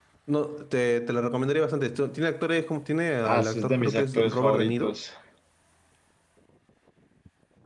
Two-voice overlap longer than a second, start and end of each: 3.2-5.0

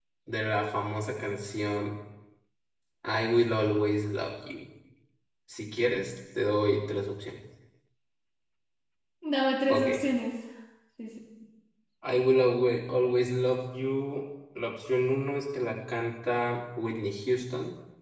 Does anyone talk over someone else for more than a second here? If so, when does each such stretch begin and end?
none

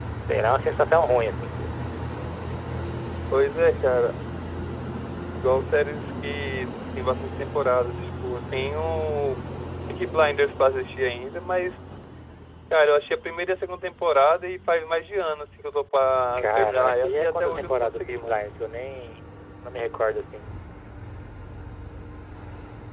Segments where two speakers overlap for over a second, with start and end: 16.4-18.4

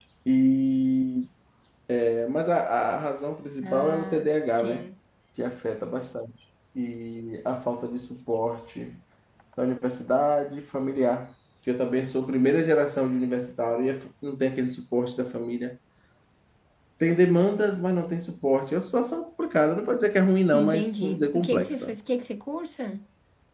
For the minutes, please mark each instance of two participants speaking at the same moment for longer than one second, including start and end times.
3.6-4.9, 20.5-21.9

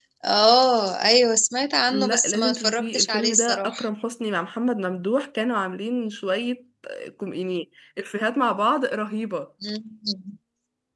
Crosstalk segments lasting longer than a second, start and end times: 1.9-3.8

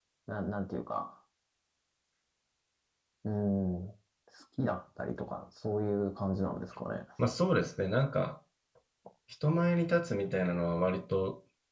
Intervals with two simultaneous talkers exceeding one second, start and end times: none

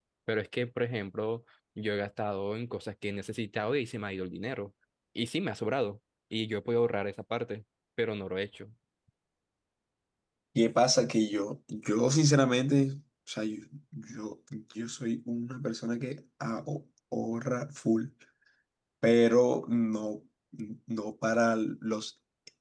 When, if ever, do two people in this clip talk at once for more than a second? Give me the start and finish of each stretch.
none

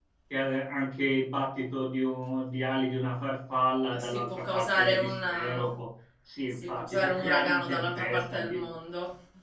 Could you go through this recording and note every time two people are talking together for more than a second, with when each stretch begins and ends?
4.0-5.6, 6.5-8.7

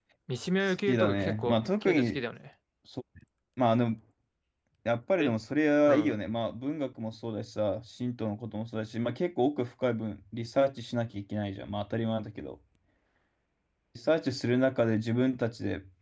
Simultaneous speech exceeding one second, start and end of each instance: 0.9-2.2

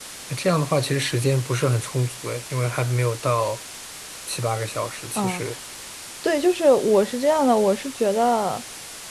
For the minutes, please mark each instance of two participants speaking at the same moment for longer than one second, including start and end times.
none

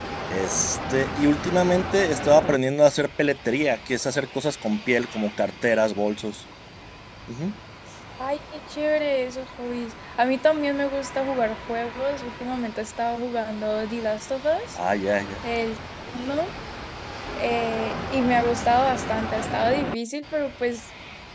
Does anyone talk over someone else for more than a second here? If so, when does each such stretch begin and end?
none

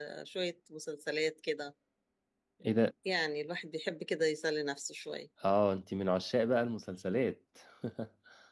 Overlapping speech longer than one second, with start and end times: none

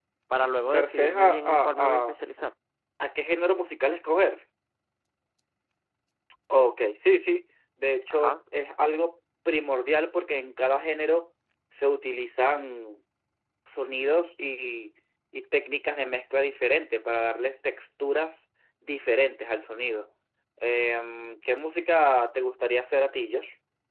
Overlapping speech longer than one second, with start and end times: 0.7-2.0

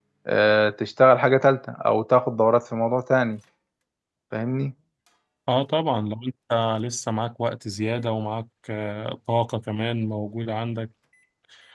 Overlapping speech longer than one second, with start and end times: none

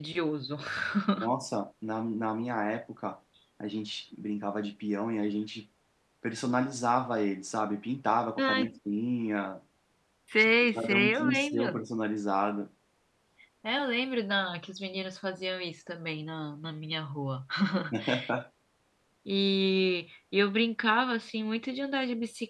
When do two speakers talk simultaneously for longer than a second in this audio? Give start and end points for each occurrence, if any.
10.4-11.8

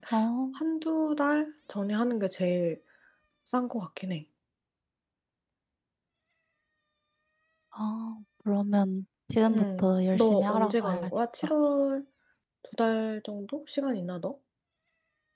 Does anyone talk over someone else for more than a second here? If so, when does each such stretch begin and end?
9.5-11.1

